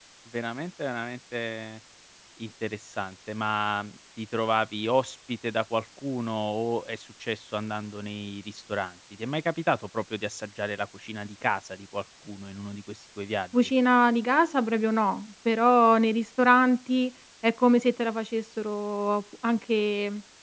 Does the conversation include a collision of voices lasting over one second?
No

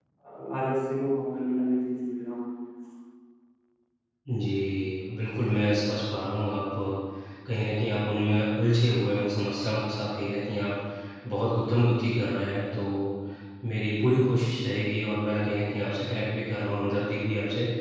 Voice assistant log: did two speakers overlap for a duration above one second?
No

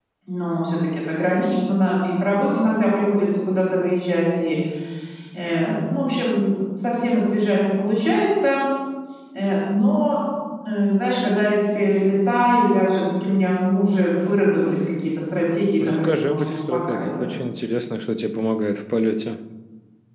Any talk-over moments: Yes, from 15.8 s

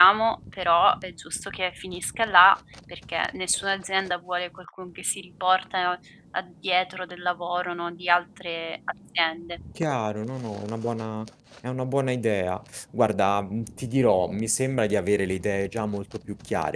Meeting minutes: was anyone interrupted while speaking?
No

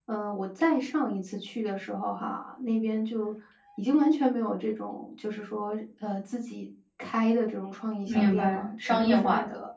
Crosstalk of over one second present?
Yes, from 8.1 s

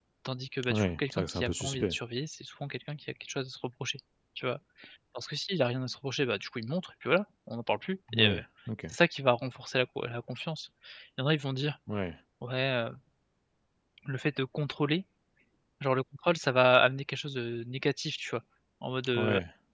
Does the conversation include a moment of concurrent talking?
Yes, from 0.7 s

